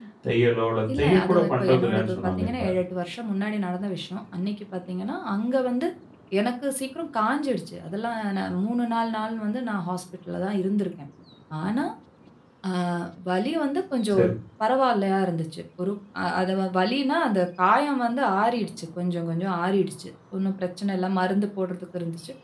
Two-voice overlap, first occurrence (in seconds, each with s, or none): 1.0 s